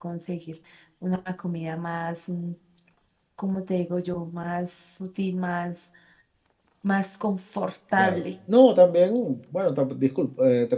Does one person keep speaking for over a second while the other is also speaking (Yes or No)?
No